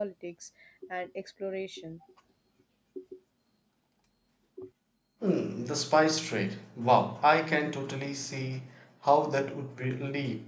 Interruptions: none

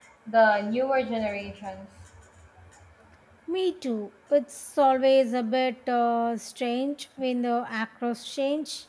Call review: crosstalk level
none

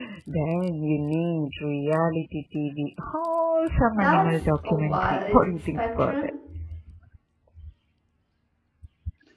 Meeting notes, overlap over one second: present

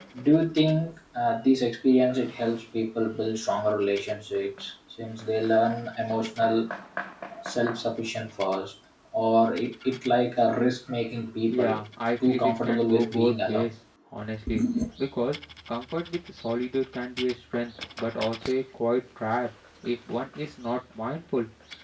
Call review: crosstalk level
present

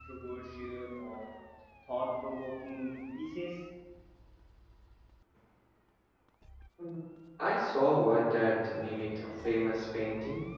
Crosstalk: none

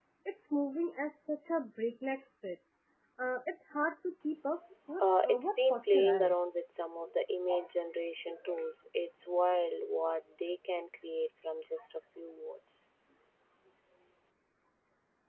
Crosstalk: present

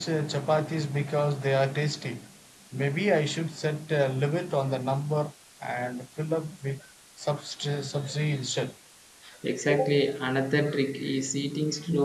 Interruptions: none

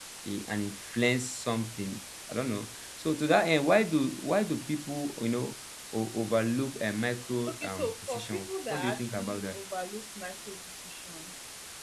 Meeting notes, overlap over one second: present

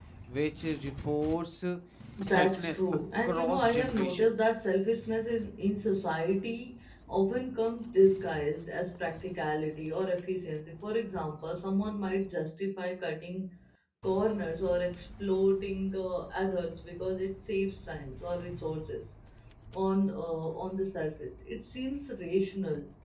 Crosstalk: present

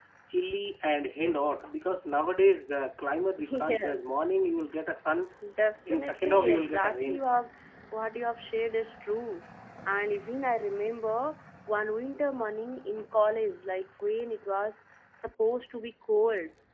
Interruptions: present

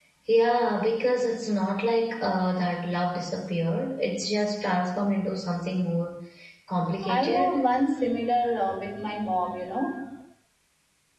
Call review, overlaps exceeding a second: none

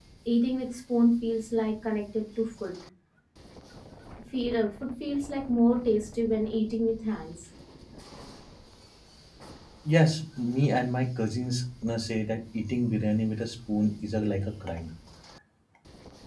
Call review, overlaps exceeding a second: none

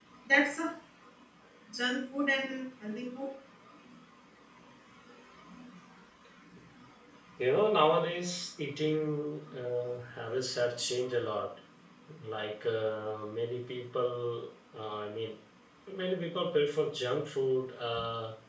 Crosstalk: none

